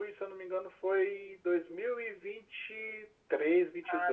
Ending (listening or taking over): taking over